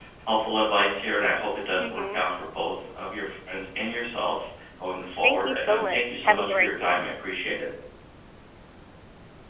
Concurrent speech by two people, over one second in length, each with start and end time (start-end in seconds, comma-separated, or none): 5.2-7.0